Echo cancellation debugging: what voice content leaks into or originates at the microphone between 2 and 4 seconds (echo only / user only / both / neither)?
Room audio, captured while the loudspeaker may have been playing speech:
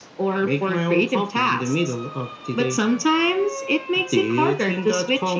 echo only